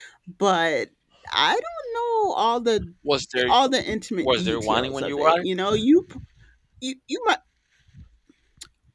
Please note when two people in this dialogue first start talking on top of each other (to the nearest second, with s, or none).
4 s